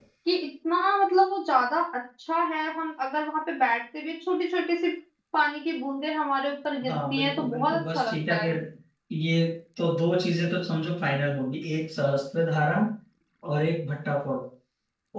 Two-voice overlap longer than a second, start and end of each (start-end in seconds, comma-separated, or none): 6.9-8.6